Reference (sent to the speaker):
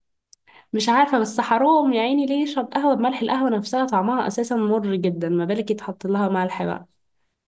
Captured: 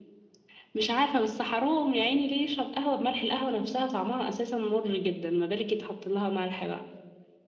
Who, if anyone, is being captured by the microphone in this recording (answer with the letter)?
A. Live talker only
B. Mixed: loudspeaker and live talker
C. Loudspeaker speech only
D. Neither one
C